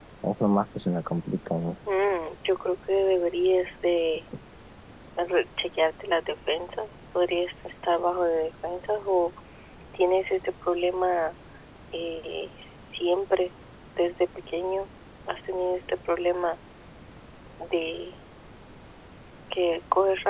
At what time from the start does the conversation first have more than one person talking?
none

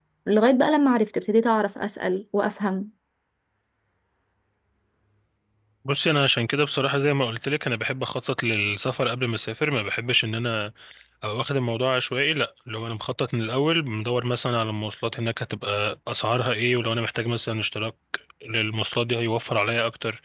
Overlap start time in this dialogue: none

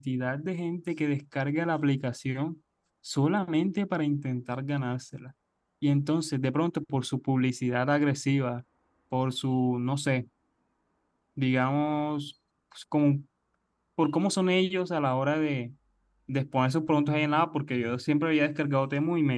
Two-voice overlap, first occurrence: none

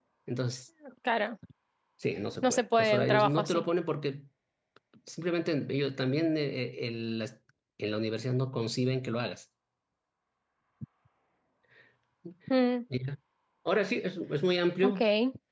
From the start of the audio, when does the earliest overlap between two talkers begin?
2.4 s

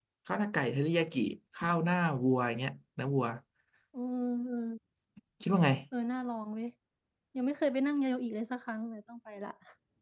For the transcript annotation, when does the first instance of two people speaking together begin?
none

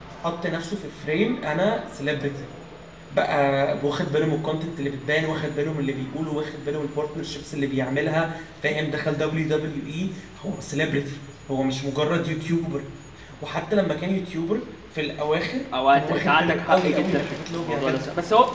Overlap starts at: 15.7 s

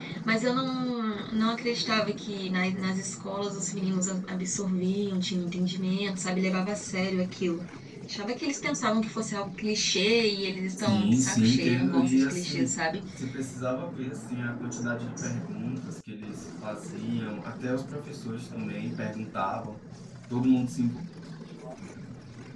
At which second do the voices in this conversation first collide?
10.8 s

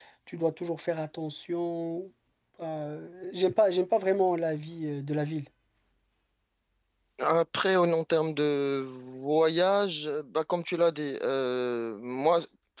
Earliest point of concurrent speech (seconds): none

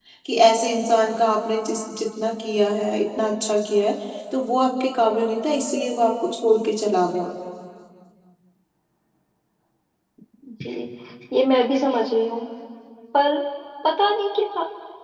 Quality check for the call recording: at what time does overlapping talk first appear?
none

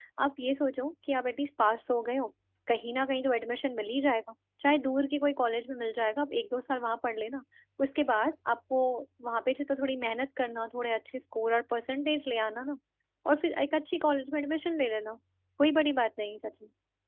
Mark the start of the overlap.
none

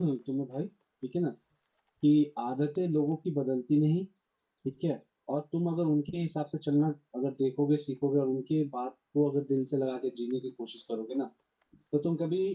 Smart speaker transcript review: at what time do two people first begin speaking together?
none

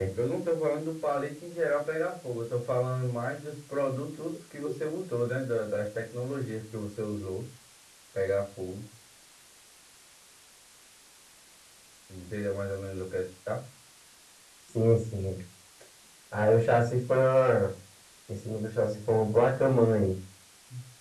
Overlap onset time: none

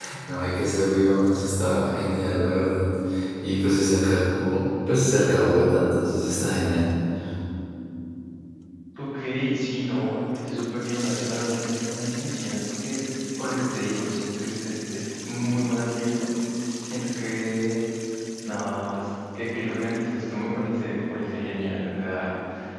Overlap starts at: none

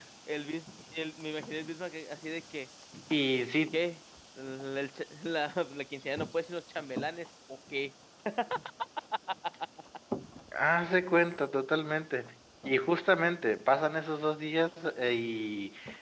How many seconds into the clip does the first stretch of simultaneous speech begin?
none

